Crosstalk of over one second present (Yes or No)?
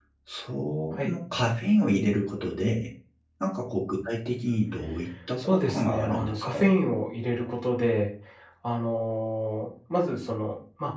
Yes